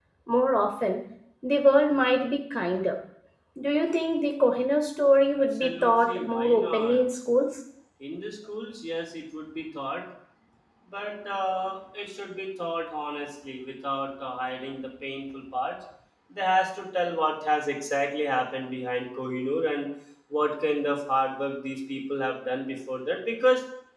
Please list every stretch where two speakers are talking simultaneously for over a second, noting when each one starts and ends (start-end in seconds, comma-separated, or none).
5.6-7.0